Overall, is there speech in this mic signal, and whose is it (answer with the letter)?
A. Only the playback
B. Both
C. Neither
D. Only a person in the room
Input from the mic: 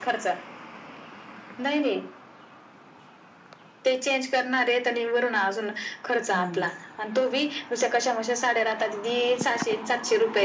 B